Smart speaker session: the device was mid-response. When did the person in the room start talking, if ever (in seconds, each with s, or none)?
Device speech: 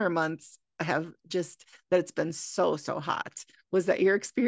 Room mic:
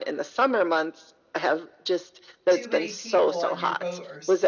2.5 s